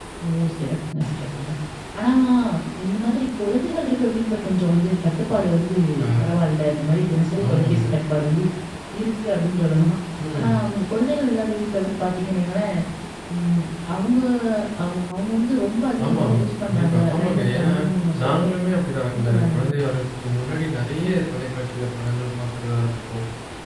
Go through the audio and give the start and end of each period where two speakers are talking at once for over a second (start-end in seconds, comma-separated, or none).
16.0-17.7